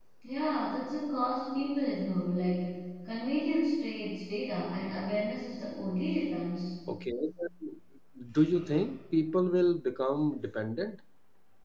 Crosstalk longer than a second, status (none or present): none